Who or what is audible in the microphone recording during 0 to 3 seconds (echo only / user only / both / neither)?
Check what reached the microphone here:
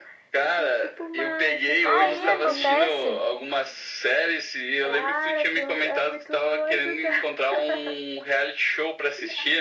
both